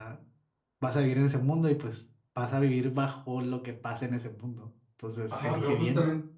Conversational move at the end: taking over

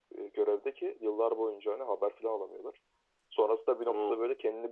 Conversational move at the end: listening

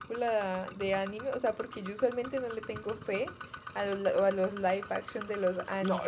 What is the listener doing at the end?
taking over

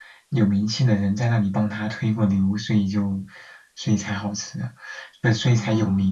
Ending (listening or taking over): listening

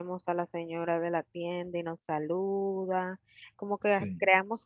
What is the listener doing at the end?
listening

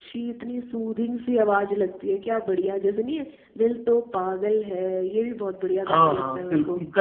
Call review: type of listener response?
taking over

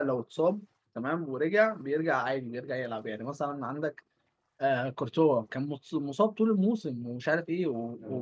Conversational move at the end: listening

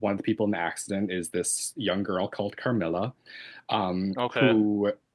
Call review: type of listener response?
listening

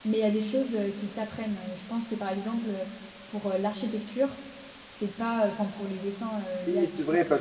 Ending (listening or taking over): taking over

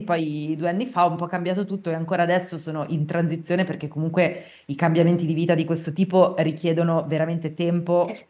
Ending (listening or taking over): taking over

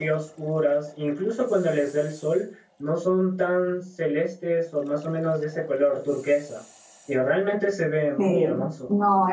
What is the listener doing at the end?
taking over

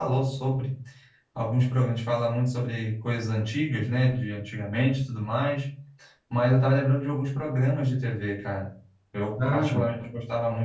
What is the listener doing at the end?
listening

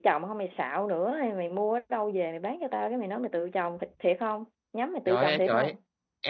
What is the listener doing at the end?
taking over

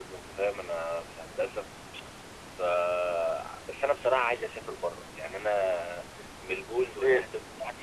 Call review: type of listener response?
taking over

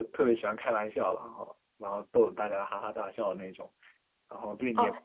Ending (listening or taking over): taking over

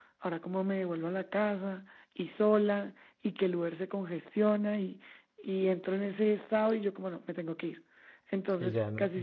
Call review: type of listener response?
taking over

